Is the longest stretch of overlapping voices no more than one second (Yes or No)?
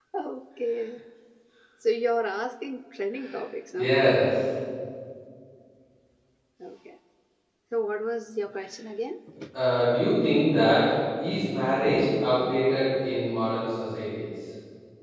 Yes